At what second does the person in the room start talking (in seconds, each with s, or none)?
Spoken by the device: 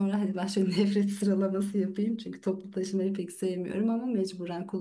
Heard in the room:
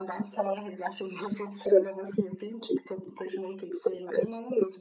none